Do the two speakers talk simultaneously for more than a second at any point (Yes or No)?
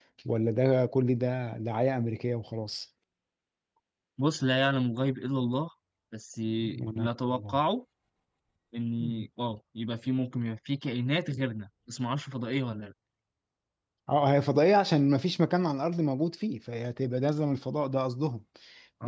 No